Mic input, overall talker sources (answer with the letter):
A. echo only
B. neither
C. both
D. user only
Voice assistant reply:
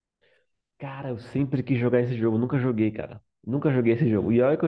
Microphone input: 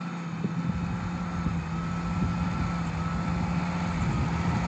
B